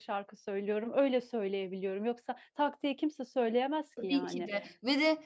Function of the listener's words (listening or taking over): taking over